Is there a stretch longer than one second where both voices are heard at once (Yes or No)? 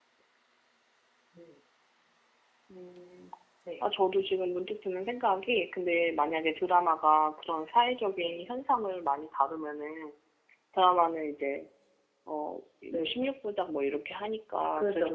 No